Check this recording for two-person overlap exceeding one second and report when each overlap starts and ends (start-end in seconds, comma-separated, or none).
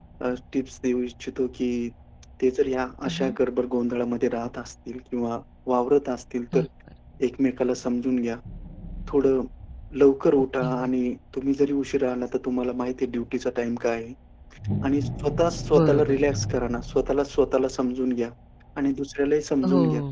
none